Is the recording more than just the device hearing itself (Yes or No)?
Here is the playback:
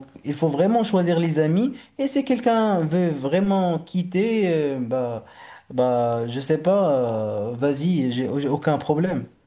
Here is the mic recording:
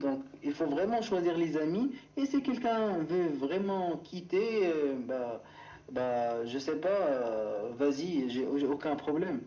No